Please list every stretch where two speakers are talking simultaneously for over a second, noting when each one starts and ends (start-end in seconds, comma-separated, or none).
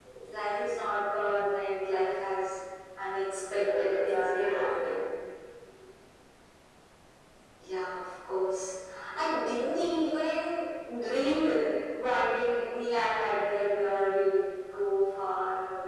3.5-5.0